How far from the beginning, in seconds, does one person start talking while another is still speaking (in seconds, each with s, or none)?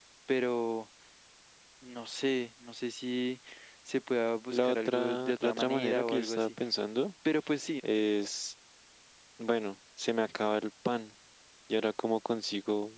4.5 s